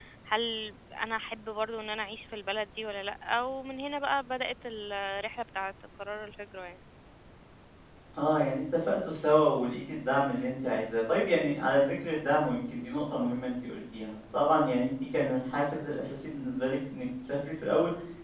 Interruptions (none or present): none